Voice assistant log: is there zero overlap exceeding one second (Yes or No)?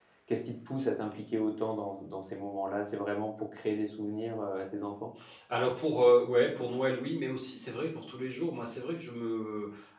Yes